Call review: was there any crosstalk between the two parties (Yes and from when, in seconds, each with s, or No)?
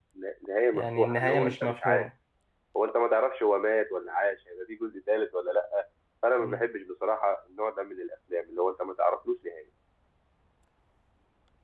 Yes, from 0.7 s